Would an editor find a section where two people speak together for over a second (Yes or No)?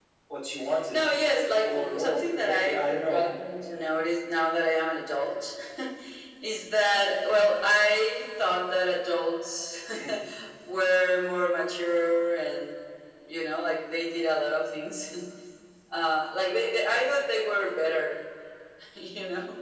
Yes